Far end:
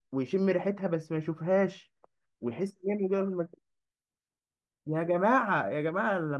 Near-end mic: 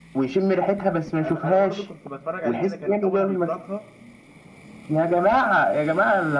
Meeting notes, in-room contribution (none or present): present